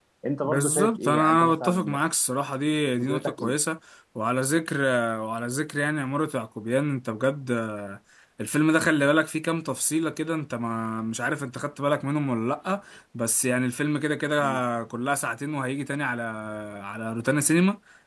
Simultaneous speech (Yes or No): Yes